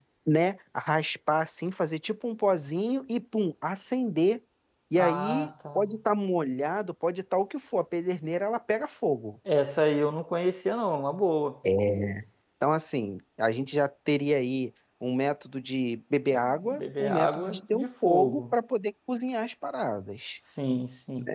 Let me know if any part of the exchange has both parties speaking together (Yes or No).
Yes